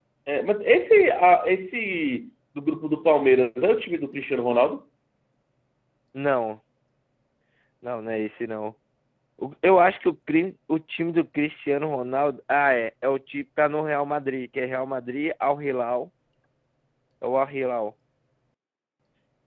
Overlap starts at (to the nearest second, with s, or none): none